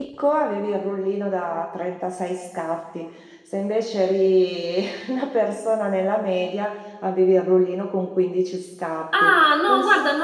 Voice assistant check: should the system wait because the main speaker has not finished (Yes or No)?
No